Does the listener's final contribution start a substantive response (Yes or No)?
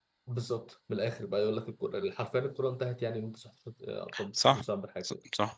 Yes